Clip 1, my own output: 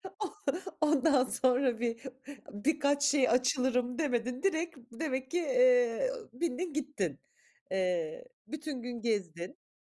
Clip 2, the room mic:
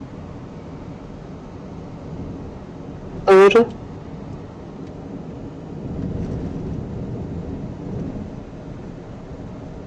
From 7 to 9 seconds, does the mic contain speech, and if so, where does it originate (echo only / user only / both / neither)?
neither